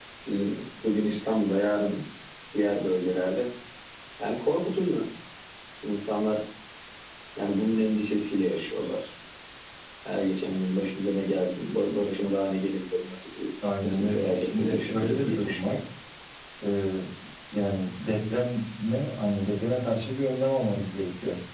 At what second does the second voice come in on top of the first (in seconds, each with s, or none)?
13.6 s